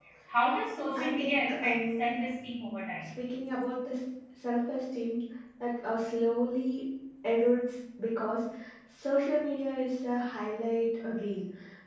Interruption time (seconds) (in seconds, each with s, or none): 1.0 s